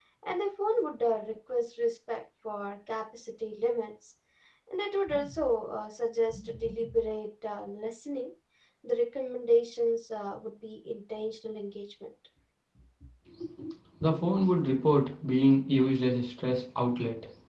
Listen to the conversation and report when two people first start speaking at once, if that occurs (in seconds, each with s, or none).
none